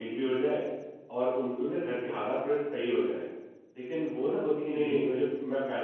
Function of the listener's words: listening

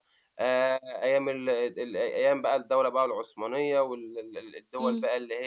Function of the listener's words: listening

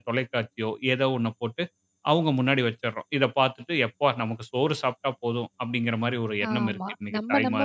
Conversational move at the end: taking over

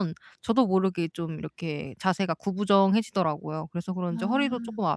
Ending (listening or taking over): listening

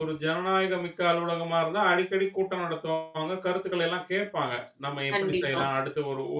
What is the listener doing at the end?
listening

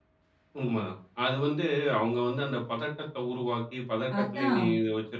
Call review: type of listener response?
listening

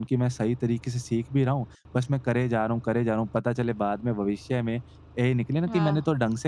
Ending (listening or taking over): listening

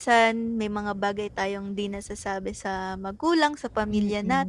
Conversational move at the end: taking over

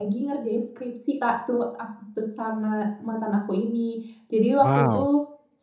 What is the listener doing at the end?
listening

